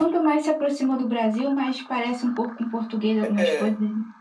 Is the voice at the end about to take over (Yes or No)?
Yes